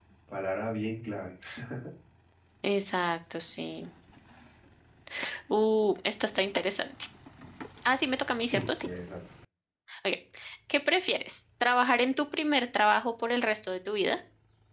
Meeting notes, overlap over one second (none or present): none